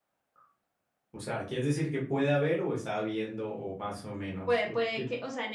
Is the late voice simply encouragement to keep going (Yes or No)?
No